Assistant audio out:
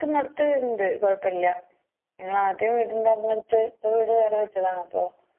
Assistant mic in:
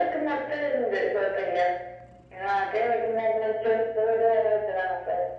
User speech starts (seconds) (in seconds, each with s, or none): none